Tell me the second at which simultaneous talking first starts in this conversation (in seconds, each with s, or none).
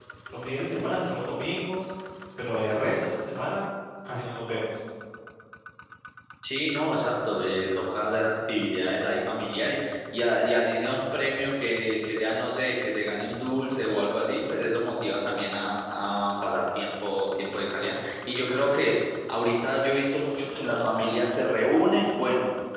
none